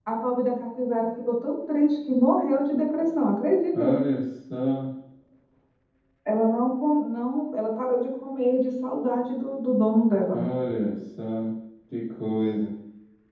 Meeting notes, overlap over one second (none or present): none